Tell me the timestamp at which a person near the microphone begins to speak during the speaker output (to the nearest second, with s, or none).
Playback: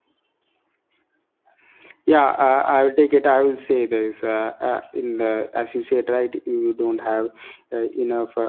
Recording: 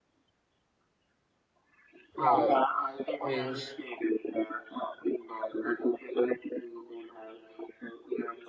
2 s